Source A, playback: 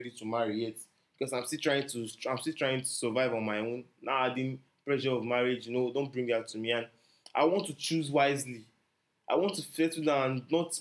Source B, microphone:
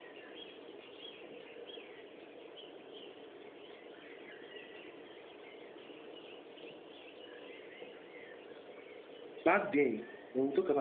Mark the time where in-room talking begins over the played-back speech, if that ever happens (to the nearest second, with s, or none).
9 s